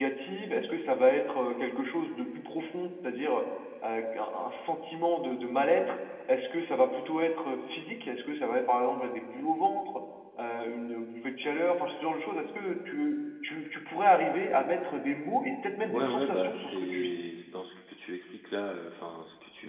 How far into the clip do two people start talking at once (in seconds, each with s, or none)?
15.9 s